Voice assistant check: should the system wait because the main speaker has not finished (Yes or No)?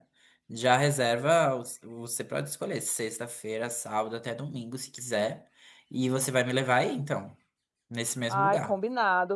No